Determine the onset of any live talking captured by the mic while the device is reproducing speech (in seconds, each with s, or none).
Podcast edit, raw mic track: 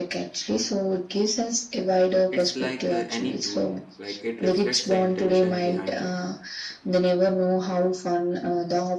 2.3 s